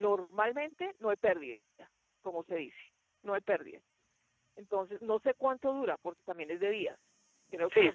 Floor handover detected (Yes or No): Yes